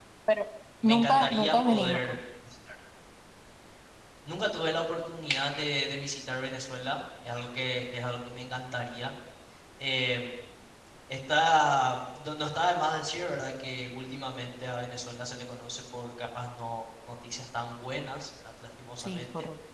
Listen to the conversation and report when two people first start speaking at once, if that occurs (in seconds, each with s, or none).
0.8 s